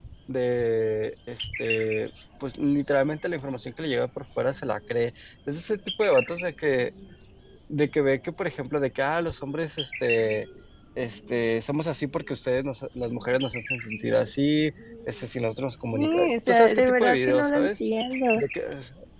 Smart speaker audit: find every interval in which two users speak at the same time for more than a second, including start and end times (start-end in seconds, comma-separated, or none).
15.9-17.7